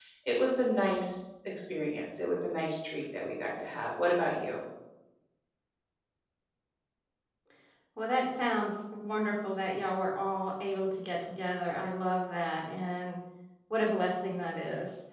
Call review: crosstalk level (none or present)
none